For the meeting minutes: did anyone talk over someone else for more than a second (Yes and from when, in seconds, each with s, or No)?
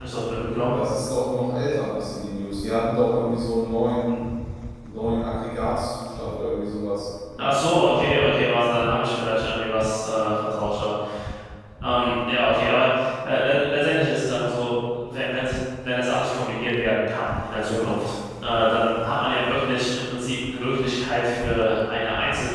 No